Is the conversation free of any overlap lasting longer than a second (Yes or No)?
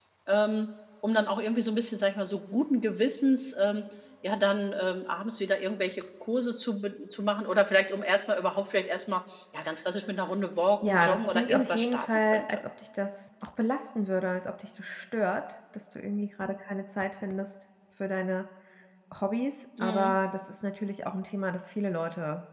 No